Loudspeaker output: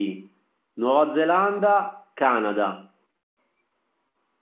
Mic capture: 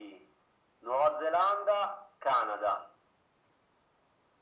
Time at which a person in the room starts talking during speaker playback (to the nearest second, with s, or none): none